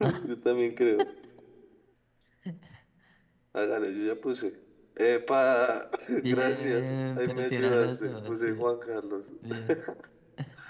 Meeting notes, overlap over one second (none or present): present